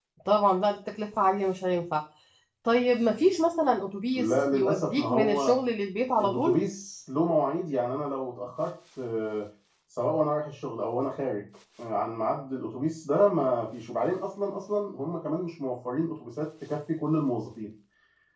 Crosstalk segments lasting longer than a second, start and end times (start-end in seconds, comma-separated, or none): 4.2-5.5